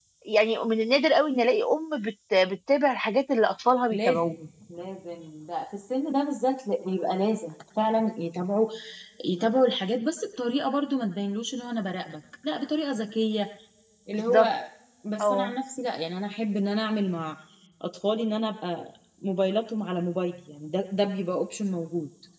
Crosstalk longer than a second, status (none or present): none